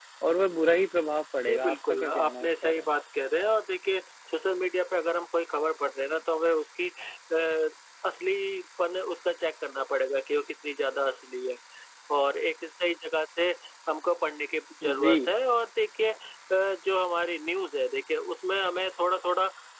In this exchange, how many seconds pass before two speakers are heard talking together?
1.4 s

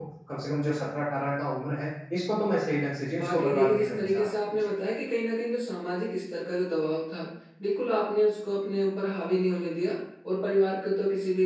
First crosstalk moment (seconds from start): 3.1 s

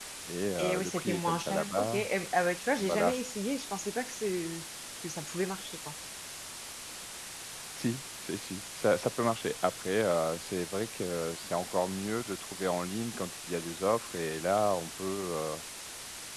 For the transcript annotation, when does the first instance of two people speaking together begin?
0.6 s

